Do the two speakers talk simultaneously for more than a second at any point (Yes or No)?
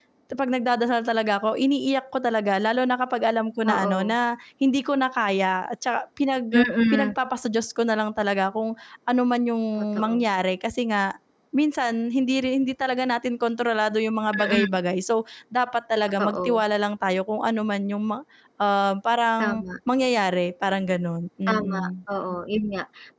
No